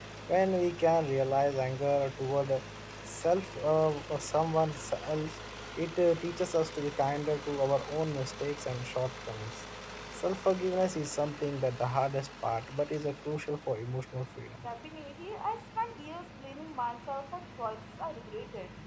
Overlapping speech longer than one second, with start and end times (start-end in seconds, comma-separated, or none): none